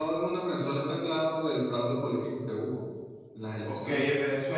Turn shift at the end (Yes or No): Yes